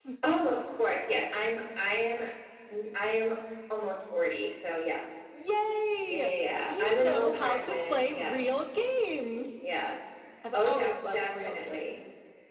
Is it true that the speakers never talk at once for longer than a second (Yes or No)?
No